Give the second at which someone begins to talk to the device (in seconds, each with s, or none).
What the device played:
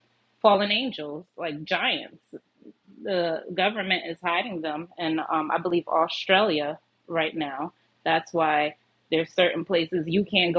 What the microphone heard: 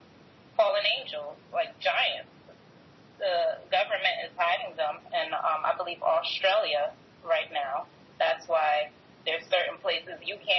none